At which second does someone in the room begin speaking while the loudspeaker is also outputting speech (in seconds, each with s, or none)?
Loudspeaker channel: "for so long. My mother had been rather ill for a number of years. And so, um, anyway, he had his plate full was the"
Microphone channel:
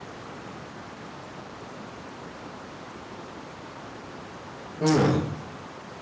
4.8 s